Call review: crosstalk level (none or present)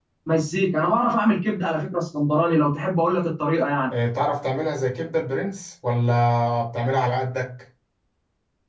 none